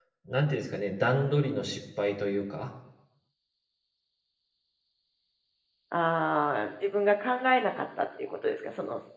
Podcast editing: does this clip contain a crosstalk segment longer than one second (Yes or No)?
No